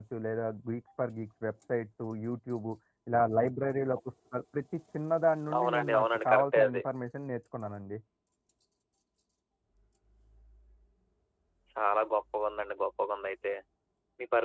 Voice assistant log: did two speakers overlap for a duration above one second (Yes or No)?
Yes